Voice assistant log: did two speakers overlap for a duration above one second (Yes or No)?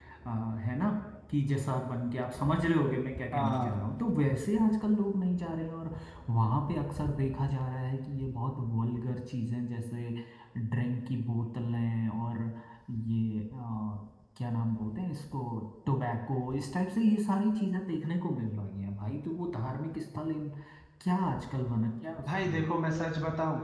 No